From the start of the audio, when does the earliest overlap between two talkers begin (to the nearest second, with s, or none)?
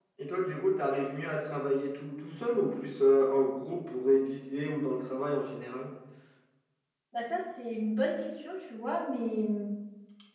none